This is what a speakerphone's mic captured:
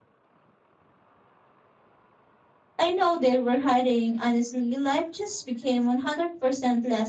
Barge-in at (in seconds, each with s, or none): 2.7 s